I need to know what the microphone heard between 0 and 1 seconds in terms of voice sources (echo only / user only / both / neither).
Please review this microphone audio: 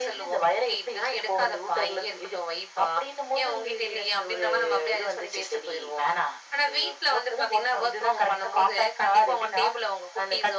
echo only